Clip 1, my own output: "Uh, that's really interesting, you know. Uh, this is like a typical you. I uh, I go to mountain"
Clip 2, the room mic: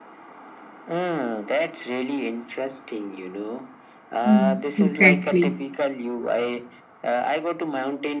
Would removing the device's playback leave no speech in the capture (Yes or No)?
No